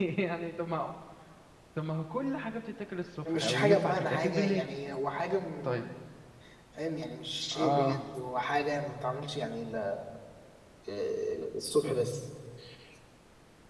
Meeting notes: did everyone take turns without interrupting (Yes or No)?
No